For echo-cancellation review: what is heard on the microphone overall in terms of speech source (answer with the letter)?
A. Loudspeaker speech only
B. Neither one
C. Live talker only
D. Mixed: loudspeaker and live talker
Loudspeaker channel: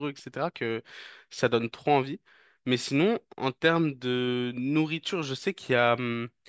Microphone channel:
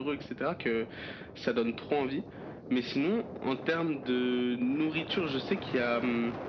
A